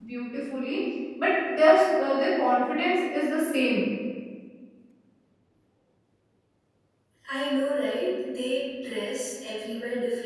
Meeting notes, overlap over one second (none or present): none